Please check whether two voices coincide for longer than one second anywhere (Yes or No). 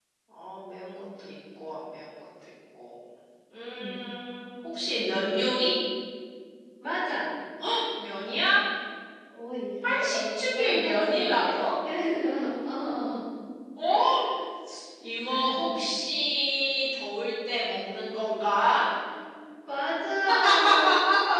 Yes